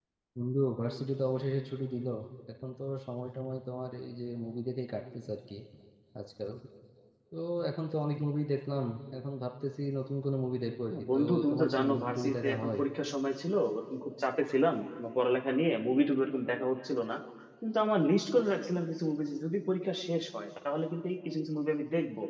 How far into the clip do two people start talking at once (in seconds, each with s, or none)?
10.9 s